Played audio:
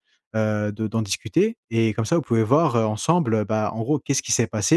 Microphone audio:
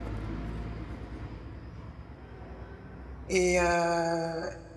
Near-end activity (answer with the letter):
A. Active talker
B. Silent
A